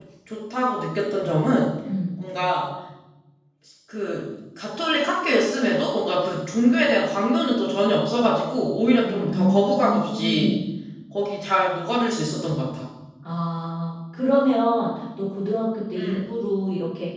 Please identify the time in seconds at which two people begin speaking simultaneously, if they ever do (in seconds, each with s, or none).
9.0 s